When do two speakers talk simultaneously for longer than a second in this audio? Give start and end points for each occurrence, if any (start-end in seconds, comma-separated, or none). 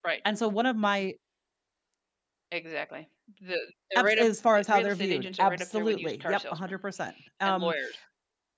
4.0-6.8